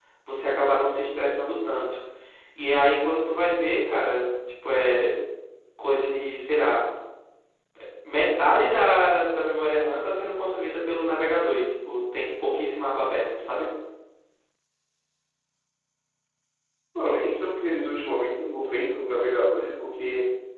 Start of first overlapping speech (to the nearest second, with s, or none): none